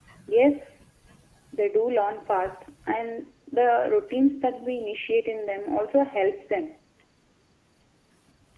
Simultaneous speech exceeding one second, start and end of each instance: none

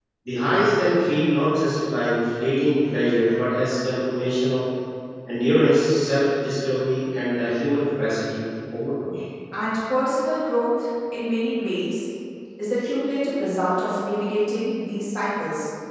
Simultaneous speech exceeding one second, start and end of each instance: none

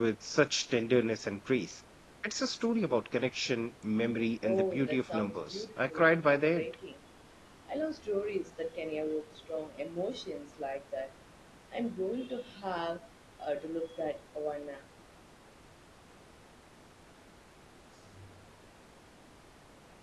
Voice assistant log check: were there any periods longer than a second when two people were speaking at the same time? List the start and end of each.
4.4-6.7

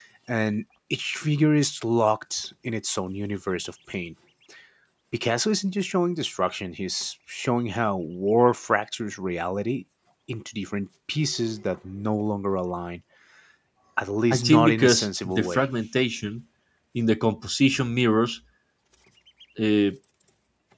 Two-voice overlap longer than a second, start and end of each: 14.3-15.7

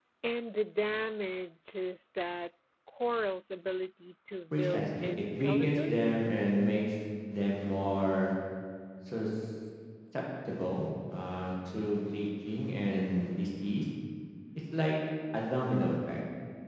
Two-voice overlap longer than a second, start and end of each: 4.5-6.1

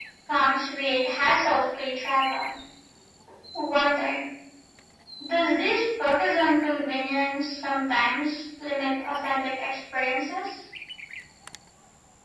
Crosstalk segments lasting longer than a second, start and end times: none

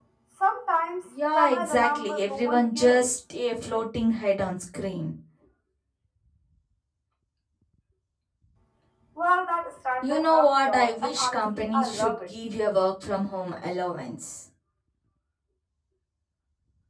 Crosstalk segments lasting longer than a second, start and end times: 1.4-3.1, 10.0-12.3

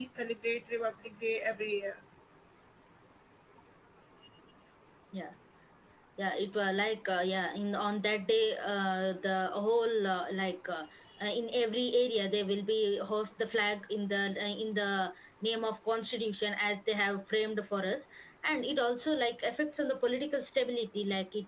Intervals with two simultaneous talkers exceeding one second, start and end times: none

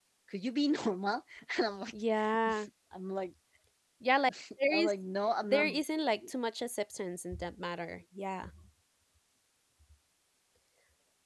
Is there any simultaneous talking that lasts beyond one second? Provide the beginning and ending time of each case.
none

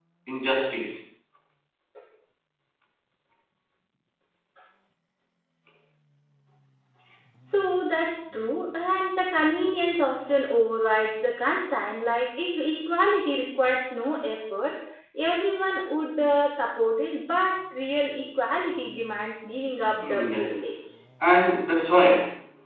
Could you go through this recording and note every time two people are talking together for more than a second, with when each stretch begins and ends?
none

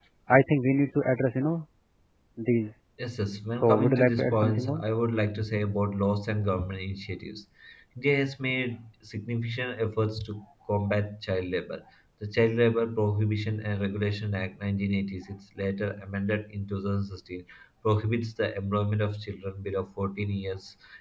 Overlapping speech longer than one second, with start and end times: 3.6-4.8

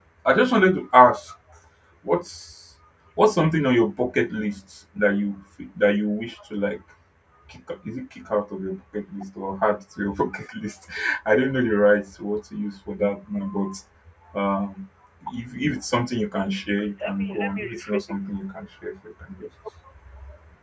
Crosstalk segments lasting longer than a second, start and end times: 16.4-18.1

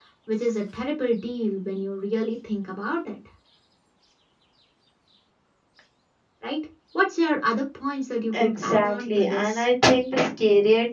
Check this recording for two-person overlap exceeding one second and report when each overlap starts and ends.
8.4-9.6

